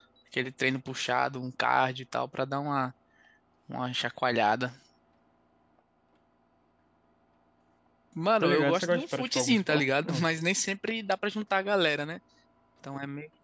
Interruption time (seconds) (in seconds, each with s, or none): 8.4 s